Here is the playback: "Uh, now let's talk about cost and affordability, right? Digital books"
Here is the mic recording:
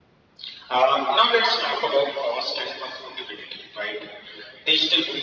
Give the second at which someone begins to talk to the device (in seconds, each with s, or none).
none